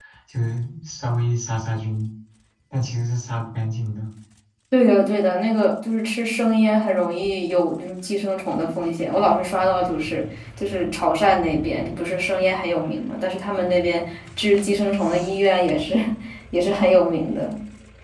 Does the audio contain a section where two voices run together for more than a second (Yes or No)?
No